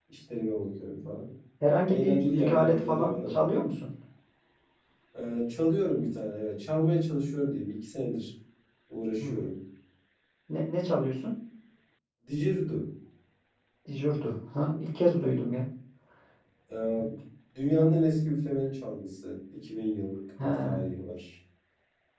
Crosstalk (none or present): present